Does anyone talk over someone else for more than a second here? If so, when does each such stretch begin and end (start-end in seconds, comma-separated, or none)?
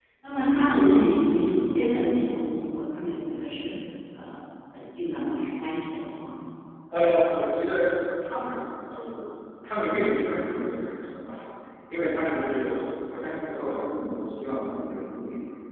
none